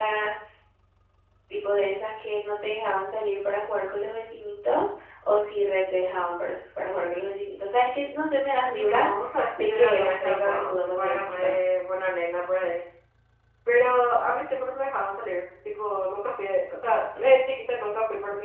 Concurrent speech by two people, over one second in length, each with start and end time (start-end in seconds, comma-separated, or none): 9.6-11.5